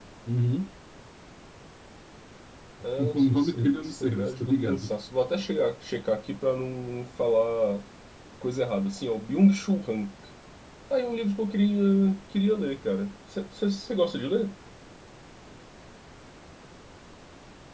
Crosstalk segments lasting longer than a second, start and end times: 3.1-4.9

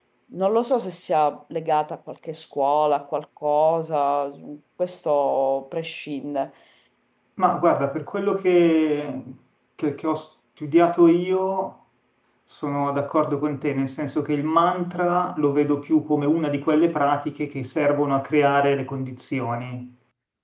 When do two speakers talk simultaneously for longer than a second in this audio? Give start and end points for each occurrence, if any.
none

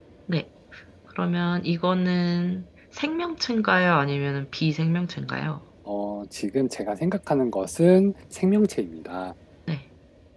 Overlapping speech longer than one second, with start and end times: none

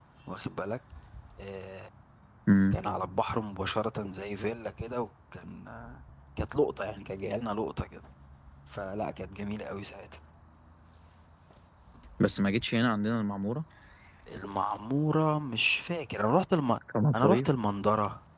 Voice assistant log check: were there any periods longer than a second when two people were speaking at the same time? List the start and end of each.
none

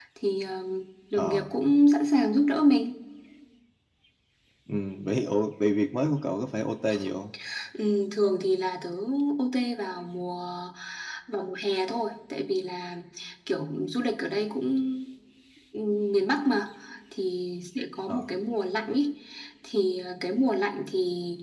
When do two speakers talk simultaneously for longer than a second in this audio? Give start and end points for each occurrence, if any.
none

